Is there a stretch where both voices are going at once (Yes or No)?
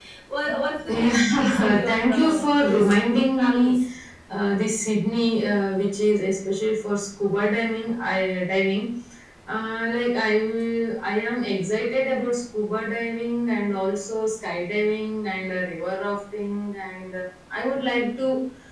Yes